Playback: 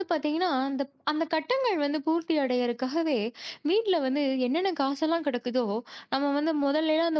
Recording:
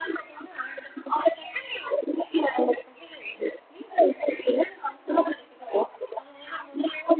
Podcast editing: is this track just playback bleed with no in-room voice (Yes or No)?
Yes